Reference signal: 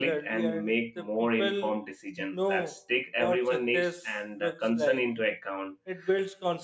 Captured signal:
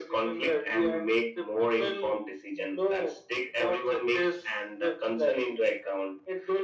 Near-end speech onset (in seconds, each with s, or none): none